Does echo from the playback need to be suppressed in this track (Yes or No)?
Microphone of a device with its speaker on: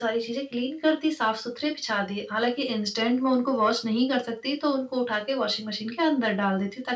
Yes